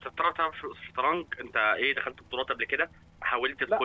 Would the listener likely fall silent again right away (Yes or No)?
No